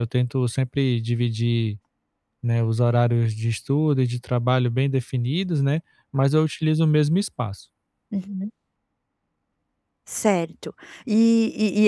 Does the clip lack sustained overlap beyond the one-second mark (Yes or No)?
Yes